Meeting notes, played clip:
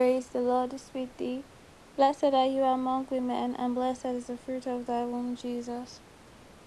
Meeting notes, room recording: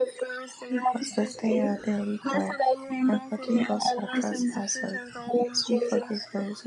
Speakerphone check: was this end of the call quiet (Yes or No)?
No